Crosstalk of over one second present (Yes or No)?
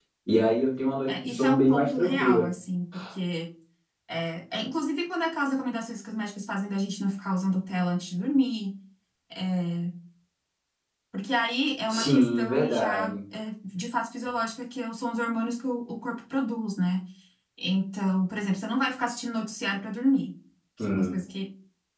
Yes